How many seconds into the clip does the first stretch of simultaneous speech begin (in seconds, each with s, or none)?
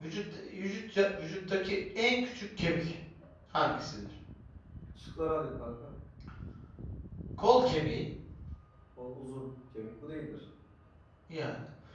none